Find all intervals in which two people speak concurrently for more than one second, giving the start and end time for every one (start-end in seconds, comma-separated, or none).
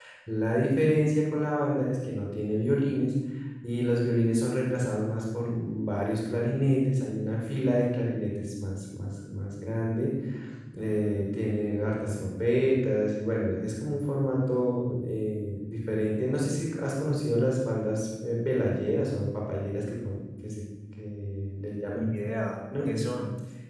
none